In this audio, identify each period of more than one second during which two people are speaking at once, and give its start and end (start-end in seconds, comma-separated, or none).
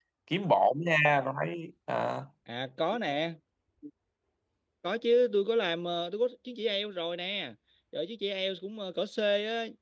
none